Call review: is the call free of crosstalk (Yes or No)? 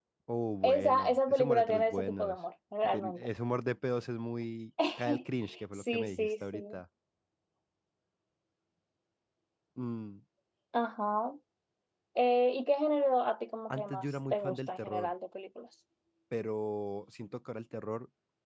No